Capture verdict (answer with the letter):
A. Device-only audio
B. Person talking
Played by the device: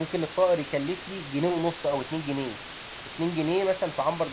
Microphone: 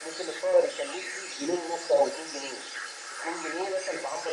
A